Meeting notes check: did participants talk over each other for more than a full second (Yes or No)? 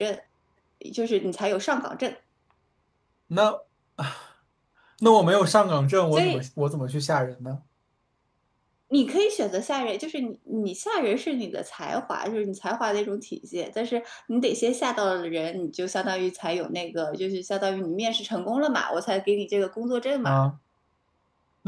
No